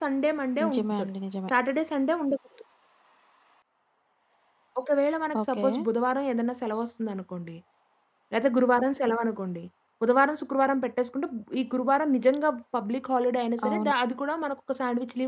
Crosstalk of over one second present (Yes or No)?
No